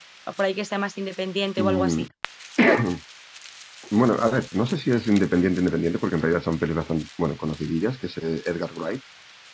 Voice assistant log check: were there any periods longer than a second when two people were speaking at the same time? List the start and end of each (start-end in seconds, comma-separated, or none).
none